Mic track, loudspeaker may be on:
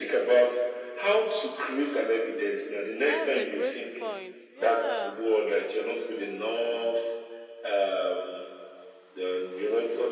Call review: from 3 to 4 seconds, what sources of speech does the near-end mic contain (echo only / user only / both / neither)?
both